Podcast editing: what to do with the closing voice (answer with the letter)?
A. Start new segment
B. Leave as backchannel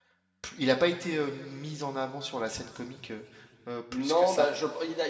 A